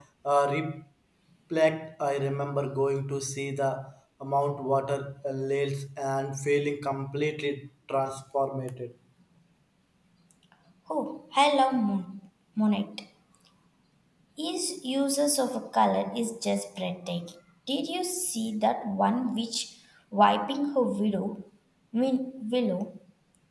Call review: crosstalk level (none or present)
none